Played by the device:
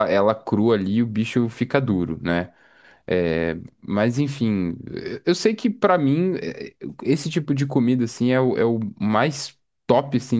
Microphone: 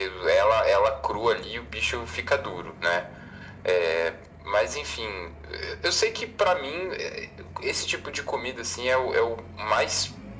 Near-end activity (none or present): none